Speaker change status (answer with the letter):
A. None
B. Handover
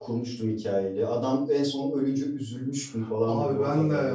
B